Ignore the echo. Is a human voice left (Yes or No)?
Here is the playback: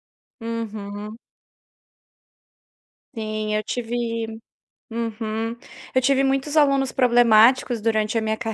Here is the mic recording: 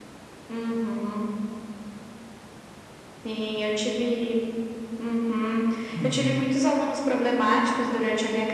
Yes